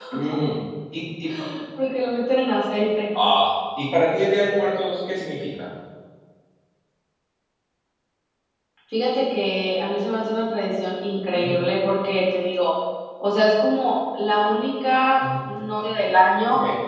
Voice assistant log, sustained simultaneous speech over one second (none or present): none